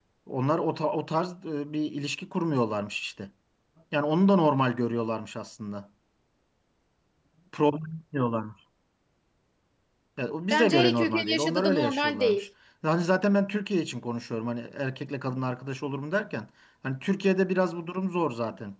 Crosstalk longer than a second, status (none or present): present